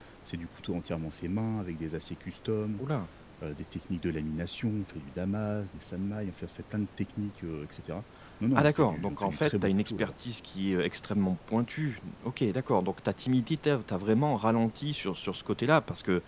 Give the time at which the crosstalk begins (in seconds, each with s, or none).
8.6 s